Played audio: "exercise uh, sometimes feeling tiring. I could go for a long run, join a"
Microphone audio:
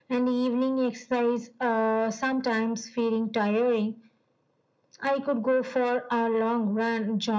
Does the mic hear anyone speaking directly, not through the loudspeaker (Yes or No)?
No